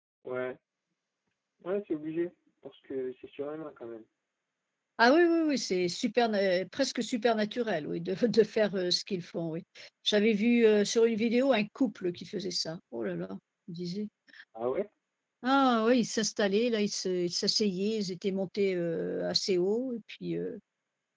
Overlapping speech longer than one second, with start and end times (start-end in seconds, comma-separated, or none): none